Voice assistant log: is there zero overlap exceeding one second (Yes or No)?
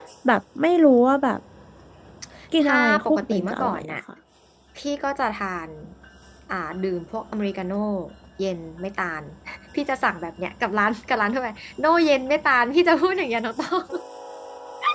No